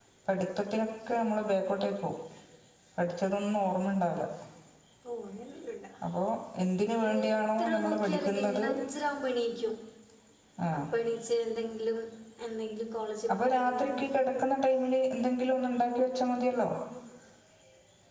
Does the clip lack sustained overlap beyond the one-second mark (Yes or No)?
No